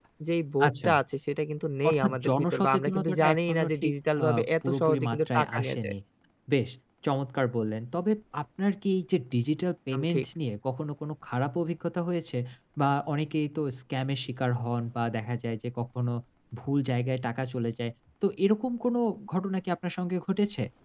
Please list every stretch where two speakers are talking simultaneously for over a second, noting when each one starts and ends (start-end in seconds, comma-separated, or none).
1.9-5.9